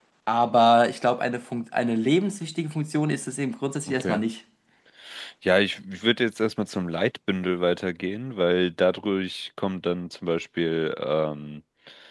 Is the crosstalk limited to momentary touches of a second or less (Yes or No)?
Yes